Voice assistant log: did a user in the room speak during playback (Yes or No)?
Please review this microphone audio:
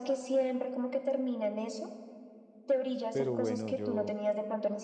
Yes